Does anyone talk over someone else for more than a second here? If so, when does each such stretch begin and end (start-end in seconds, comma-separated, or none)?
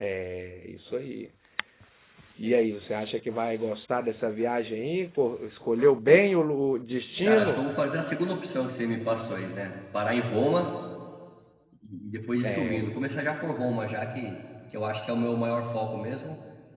none